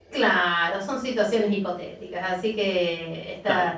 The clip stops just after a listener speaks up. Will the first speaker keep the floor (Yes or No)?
Yes